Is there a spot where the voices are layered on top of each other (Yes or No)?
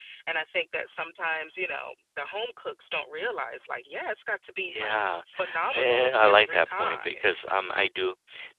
Yes